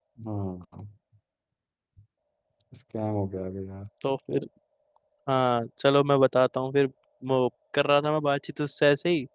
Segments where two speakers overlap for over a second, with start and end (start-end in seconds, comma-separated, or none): none